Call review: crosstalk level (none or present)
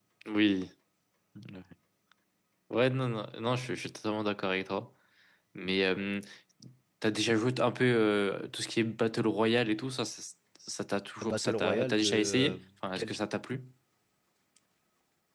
present